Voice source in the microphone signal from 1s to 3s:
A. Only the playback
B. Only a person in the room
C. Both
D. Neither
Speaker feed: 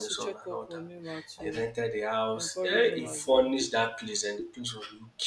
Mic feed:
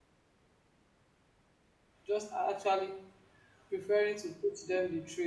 B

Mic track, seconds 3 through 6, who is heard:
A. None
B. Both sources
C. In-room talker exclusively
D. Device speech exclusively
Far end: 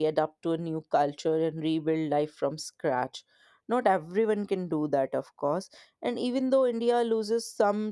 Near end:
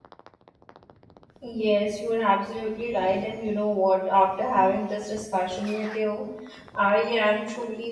C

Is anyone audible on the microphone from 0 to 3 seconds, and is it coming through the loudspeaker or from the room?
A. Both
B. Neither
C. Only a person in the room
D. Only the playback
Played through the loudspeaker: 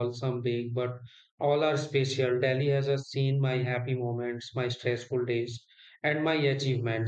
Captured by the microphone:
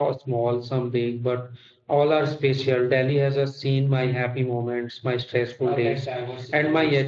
D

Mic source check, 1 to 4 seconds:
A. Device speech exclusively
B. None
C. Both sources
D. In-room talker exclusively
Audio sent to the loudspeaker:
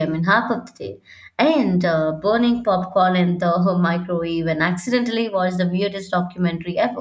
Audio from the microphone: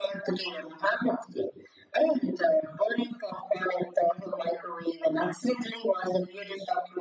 A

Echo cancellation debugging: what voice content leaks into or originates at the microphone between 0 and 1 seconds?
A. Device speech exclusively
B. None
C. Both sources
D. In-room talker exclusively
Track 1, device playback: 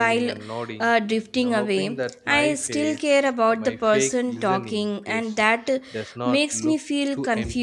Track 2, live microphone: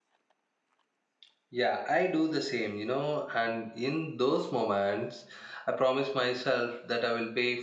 B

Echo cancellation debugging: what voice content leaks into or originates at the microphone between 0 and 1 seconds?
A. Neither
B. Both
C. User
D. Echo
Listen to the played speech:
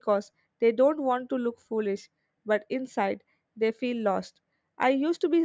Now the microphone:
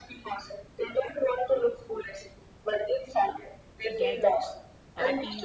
D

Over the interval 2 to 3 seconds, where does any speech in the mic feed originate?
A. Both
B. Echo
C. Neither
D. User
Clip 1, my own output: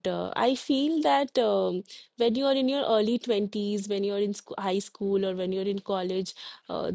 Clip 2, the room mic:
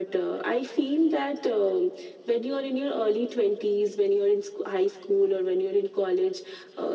B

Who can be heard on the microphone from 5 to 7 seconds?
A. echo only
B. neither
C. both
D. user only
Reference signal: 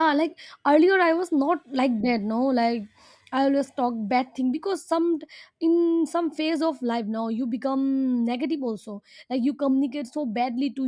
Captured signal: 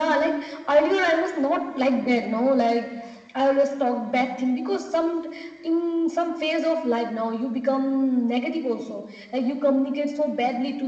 A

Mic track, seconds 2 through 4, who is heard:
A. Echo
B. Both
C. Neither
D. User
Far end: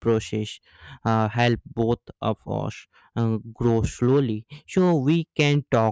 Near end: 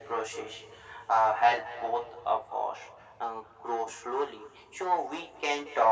A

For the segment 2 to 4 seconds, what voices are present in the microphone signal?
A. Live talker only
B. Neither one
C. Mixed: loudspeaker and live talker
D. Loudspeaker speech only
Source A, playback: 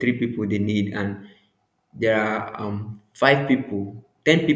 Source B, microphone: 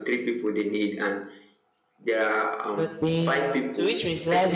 C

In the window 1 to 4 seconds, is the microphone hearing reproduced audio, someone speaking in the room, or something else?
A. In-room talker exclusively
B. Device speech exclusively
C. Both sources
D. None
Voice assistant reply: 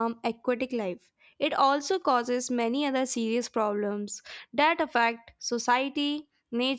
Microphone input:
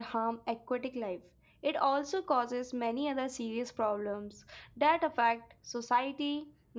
B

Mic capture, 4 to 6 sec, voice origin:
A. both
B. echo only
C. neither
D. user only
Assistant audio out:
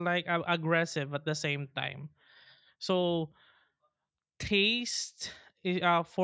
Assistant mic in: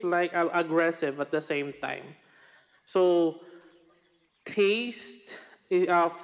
B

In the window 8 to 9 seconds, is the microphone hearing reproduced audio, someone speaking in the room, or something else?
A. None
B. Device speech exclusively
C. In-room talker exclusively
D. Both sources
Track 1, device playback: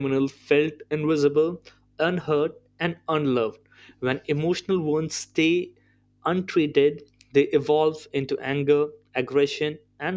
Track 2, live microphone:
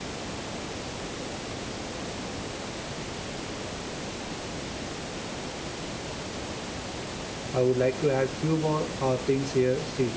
C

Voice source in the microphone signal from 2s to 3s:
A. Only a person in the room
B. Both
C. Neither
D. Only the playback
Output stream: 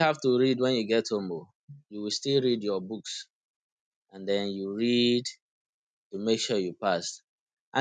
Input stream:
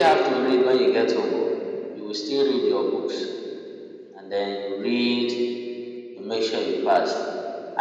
D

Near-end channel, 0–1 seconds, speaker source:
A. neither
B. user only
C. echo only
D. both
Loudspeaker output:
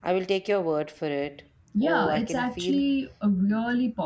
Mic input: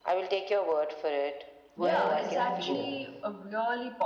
C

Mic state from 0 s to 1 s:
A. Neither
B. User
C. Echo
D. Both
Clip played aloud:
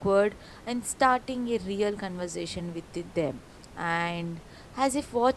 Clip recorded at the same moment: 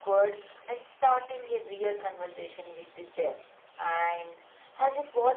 C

